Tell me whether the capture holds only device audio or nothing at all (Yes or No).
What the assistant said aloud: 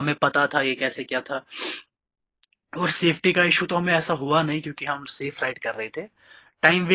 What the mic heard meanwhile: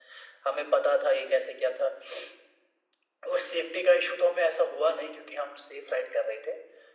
Yes